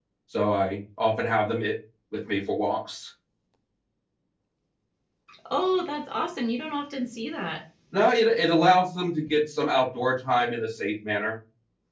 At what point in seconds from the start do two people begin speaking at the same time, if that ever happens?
none

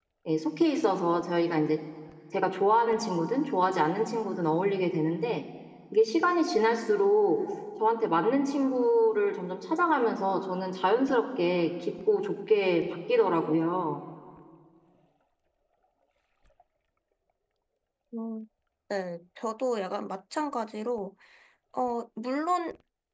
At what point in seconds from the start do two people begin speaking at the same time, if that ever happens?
none

